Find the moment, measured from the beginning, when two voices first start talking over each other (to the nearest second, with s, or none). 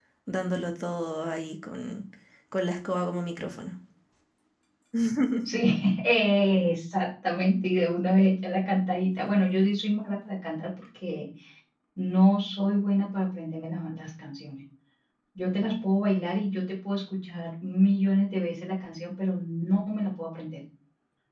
none